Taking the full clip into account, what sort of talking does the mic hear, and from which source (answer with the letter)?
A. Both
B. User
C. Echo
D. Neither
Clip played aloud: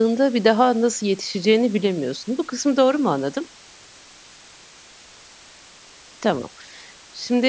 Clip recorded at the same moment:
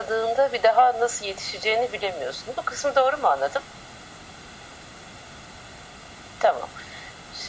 C